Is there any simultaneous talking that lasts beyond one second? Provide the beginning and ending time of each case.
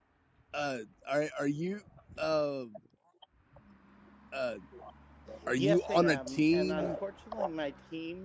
5.6-6.8

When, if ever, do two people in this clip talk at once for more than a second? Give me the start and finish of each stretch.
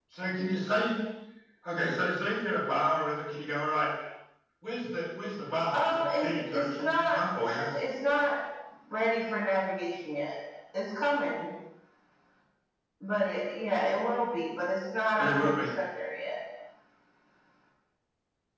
5.7-7.2

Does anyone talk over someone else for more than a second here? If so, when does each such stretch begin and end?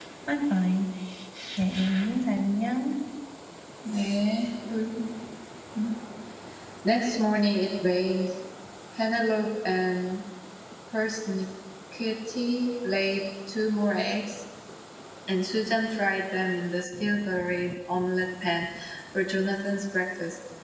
none

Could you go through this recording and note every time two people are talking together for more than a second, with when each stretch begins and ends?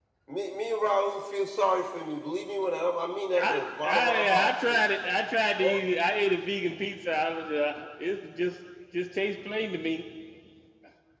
3.4-4.8

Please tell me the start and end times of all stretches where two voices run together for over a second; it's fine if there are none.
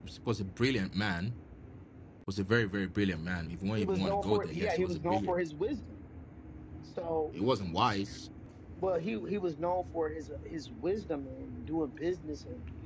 3.8-5.3

